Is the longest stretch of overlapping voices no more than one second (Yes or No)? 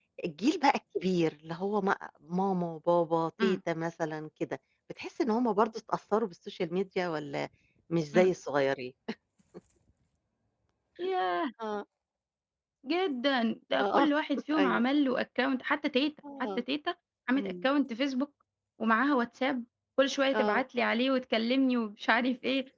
Yes